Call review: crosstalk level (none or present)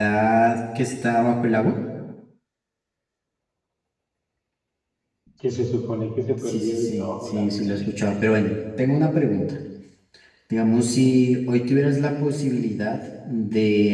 present